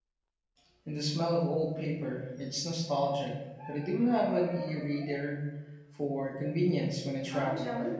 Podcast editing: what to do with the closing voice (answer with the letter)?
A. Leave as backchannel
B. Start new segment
B